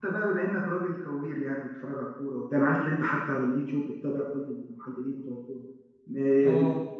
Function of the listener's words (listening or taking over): listening